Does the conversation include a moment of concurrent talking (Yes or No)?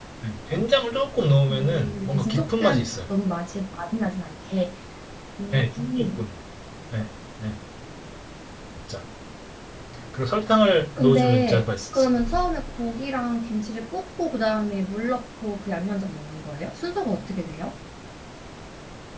Yes